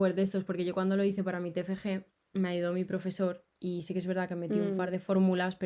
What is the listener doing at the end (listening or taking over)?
listening